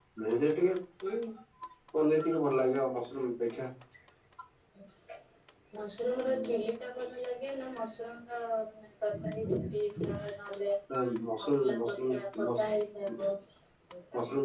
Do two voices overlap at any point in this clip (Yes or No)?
Yes